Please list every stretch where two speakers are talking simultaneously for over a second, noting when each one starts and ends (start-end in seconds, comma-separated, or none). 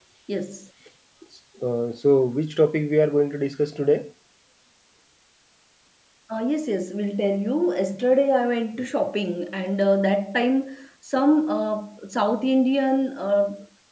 none